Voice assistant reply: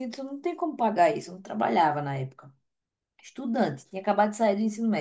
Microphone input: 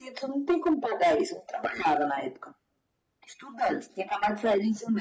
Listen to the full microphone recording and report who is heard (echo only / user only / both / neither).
echo only